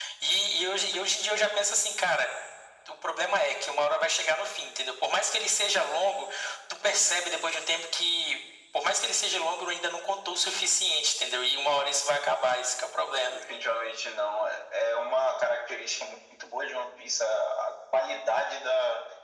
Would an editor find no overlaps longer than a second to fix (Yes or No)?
Yes